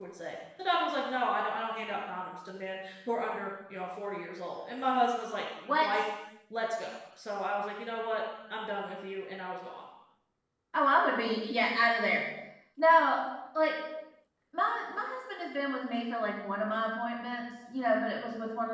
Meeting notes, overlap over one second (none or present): none